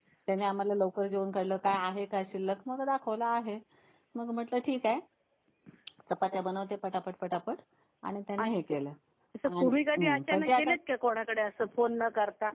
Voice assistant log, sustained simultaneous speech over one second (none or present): present